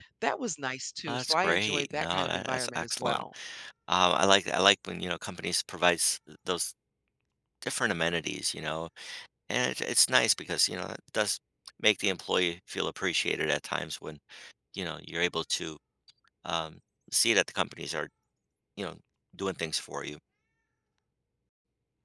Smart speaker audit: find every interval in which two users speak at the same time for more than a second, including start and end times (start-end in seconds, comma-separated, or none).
1.1-3.2